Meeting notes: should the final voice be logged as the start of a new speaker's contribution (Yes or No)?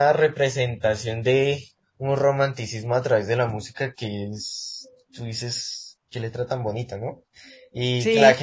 No